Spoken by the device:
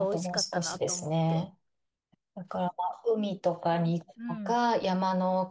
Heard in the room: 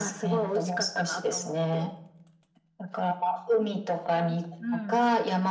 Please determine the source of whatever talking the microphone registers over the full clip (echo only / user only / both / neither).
echo only